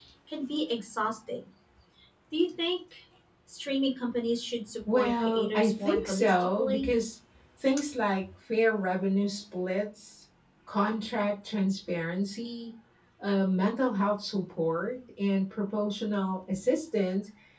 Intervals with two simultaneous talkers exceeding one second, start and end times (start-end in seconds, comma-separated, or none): 4.9-6.9